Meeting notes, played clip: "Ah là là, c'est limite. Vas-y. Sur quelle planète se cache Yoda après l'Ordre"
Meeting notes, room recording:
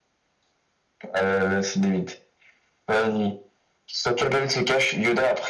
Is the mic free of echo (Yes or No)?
No